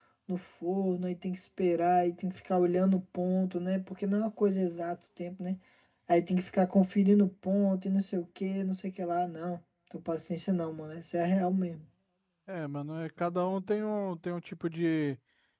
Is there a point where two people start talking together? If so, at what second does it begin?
none

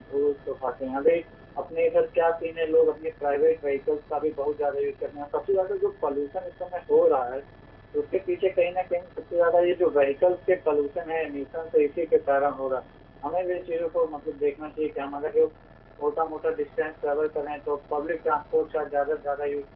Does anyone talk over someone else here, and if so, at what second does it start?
none

